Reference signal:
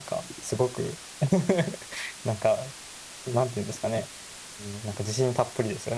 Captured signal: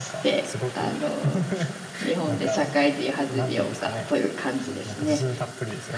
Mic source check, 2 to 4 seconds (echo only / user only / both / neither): both